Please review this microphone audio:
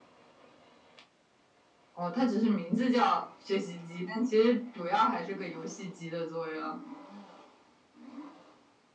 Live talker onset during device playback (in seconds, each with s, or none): none